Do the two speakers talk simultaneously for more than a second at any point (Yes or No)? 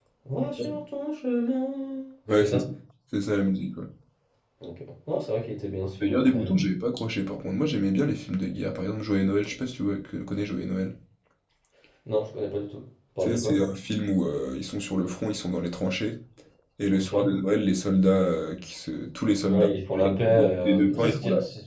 Yes